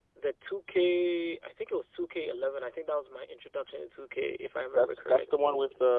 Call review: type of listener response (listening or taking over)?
taking over